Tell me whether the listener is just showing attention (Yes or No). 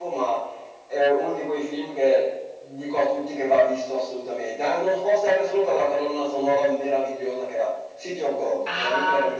No